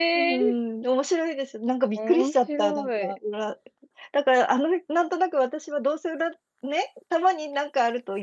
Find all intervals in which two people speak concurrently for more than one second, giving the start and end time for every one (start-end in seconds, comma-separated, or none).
2.0-3.2